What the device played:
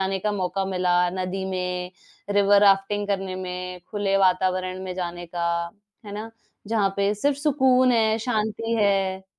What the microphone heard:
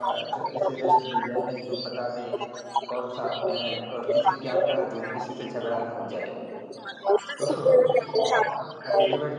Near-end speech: present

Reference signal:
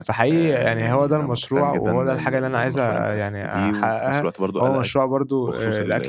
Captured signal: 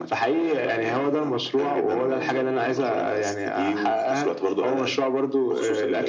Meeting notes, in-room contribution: none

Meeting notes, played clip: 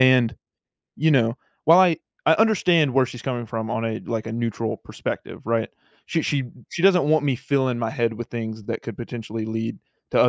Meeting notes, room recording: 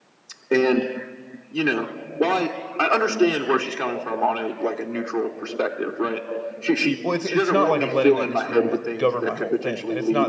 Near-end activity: present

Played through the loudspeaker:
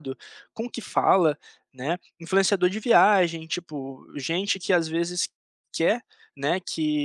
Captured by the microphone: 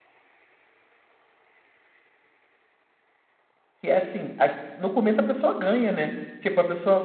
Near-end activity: present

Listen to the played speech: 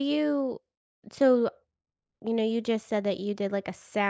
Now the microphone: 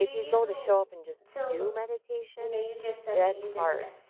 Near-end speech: present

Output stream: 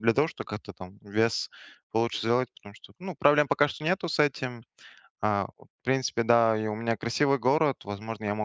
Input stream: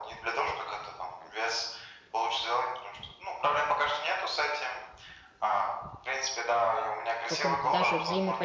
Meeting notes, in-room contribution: present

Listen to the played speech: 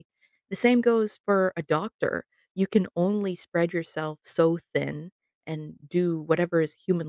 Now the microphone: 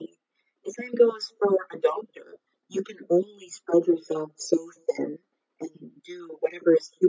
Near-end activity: none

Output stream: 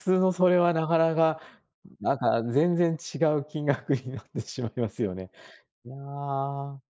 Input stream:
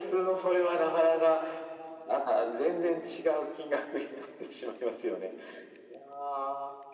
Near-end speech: none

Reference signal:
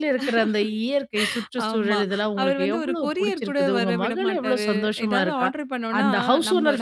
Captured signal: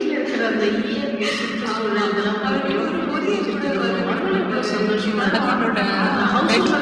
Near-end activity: present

